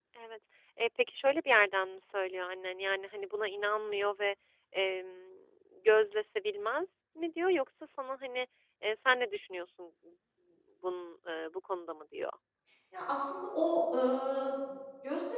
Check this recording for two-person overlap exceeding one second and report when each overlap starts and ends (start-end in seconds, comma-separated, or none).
none